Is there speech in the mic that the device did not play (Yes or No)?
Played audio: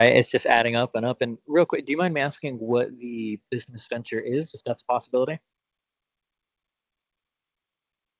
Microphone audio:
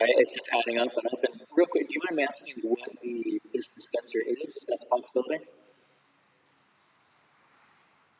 No